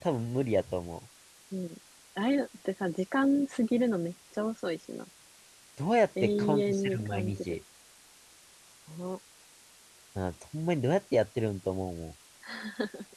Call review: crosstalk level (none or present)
present